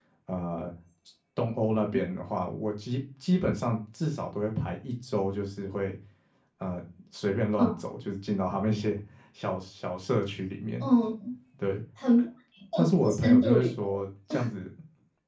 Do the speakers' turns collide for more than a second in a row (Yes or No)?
Yes